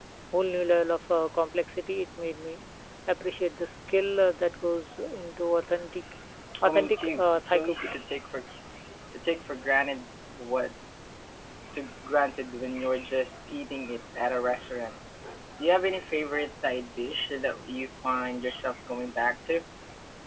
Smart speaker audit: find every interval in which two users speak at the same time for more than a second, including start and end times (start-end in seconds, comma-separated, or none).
6.6-8.0